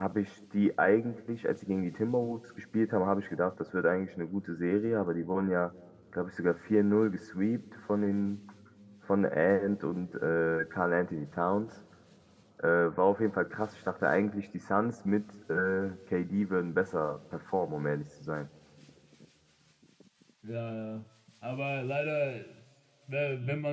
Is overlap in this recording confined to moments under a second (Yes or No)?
Yes